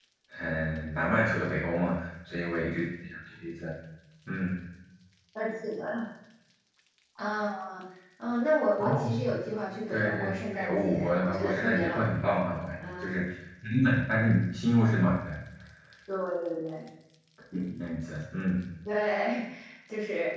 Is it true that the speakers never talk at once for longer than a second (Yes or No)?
No